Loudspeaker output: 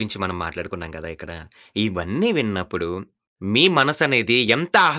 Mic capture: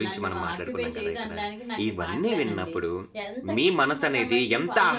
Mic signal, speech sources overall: both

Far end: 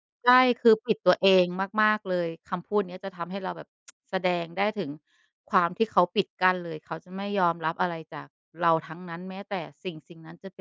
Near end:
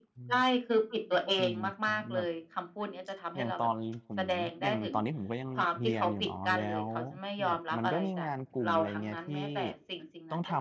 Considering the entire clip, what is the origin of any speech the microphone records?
both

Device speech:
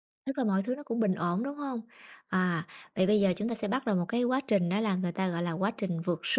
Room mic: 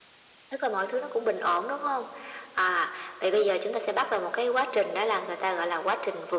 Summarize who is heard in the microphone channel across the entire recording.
echo only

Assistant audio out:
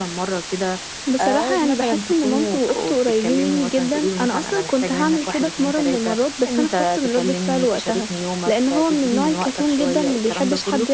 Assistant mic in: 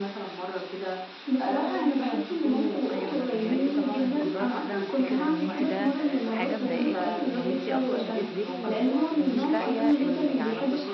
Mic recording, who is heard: both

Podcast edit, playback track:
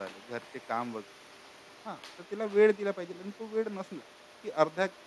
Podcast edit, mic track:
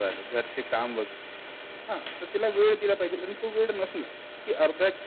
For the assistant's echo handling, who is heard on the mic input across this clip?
echo only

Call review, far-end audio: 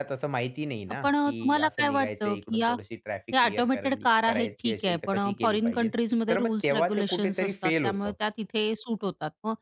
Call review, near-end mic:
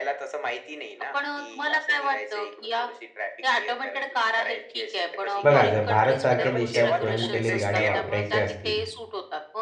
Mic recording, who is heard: both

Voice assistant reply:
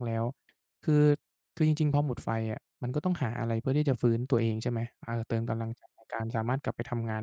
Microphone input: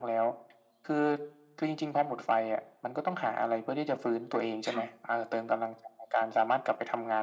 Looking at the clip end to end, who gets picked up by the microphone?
both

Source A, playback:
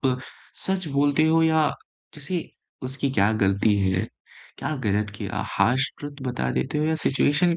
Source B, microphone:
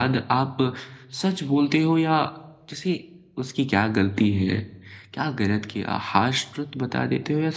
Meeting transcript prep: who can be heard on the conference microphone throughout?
echo only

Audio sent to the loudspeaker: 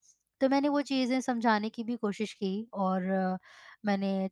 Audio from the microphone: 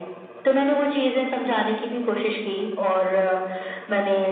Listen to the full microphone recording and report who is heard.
echo only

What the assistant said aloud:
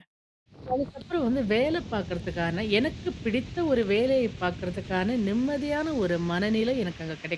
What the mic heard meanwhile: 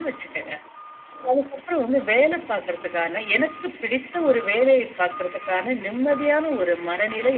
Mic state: echo only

